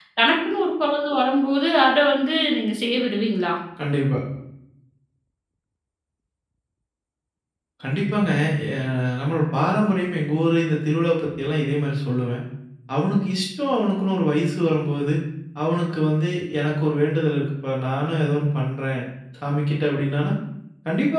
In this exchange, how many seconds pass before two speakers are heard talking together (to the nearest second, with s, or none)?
none